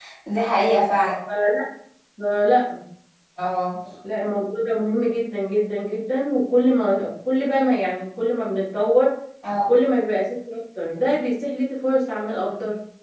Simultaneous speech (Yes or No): No